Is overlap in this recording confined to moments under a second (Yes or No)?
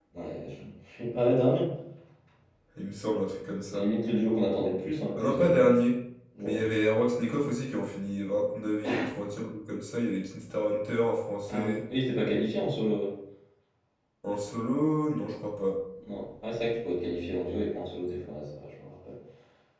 Yes